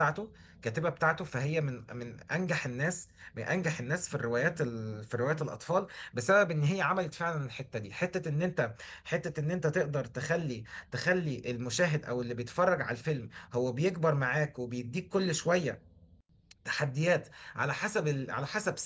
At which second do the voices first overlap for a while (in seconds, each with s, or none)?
none